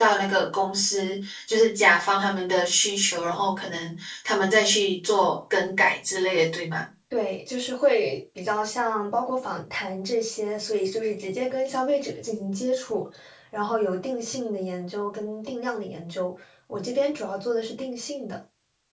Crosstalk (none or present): none